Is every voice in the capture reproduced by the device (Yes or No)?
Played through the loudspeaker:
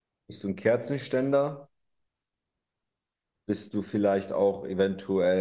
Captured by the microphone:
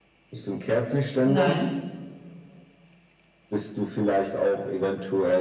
No